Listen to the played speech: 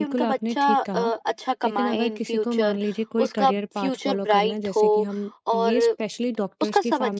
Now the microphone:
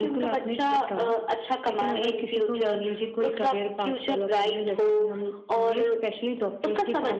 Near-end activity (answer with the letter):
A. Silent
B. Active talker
A